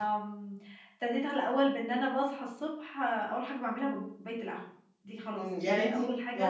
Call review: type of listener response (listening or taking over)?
taking over